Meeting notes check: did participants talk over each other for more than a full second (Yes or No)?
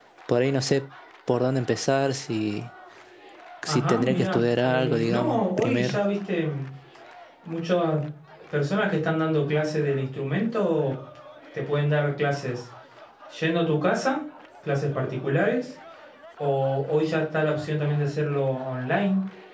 Yes